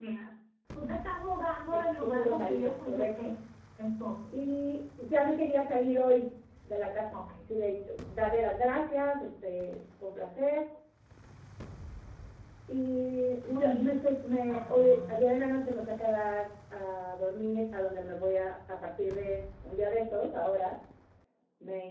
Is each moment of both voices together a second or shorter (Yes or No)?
No